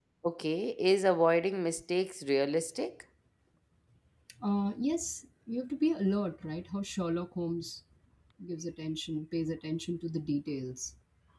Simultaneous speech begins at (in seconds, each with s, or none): none